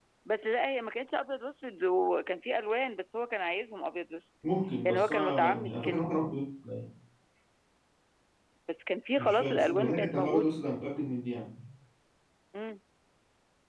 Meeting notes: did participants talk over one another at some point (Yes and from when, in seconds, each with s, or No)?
Yes, from 4.8 s